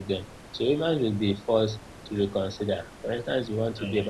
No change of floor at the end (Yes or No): Yes